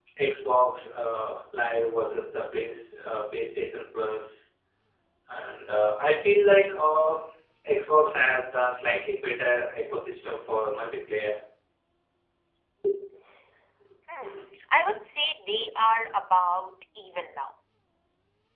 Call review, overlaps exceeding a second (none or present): none